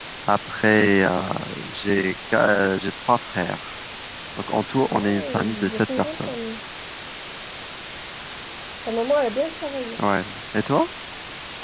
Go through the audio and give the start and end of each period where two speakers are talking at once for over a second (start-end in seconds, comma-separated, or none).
4.9-6.3